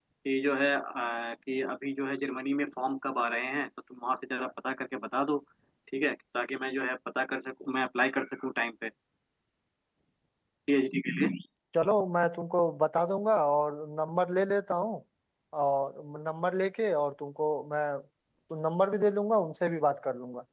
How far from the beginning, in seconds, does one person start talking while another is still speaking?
none

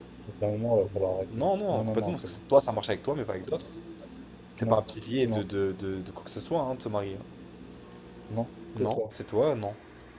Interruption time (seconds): 0.9 s

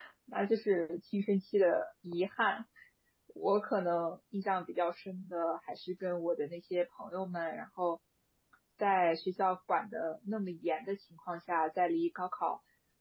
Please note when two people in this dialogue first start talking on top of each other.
none

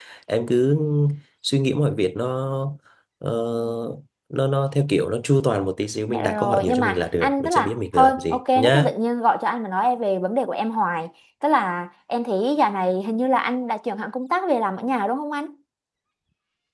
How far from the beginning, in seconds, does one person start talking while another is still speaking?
6.1 s

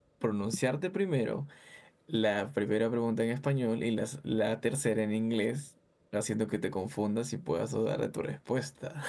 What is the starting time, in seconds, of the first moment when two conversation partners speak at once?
none

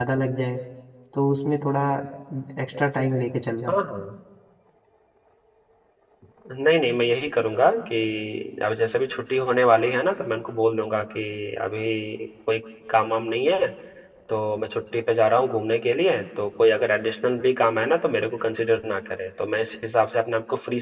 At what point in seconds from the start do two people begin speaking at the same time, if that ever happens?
none

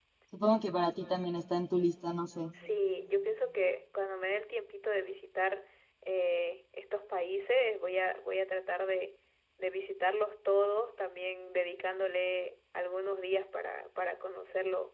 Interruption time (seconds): none

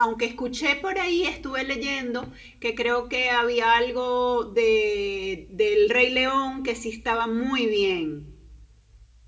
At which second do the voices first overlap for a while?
none

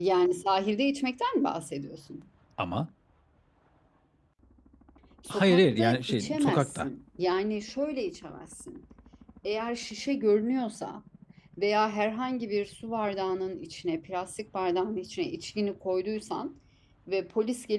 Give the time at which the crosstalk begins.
5.3 s

